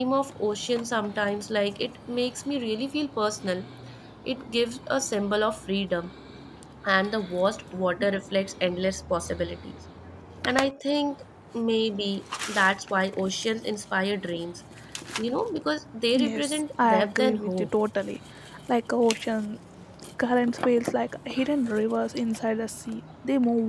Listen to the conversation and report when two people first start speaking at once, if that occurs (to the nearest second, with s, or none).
16 s